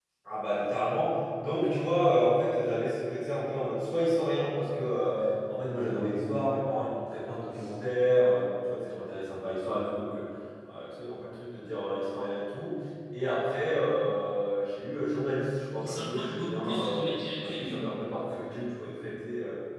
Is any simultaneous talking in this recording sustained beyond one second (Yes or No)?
Yes